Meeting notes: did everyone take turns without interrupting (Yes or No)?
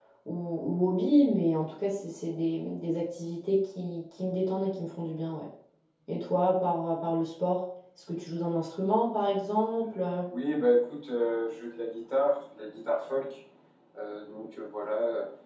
Yes